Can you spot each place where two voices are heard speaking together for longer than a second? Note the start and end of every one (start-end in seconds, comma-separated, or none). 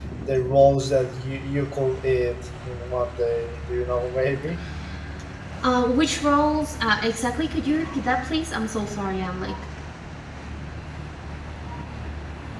none